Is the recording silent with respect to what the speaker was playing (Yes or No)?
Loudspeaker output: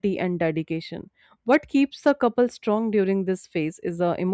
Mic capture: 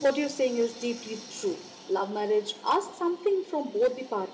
Yes